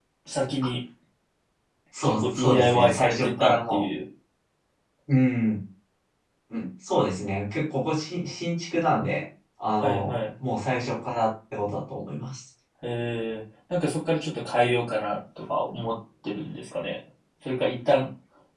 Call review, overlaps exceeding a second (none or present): present